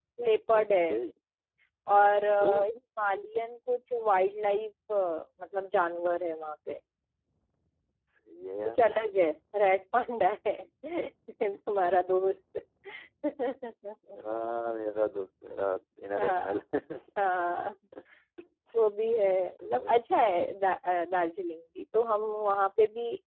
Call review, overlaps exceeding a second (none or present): none